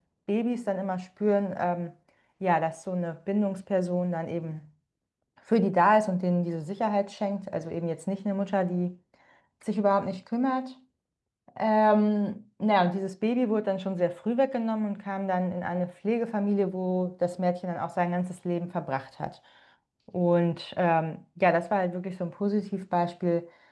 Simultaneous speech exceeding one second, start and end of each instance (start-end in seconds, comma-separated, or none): none